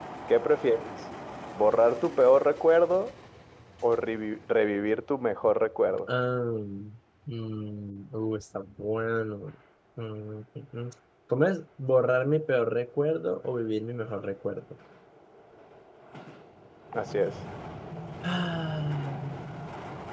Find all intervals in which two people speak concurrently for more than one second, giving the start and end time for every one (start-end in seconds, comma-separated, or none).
none